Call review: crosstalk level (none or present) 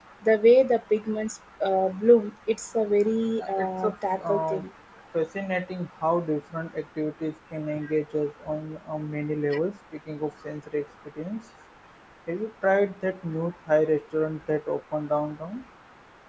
present